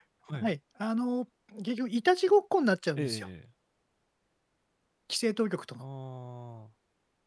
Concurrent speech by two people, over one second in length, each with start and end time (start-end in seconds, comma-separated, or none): none